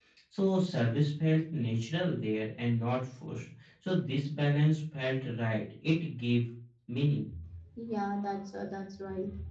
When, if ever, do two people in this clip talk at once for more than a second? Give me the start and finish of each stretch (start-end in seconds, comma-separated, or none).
none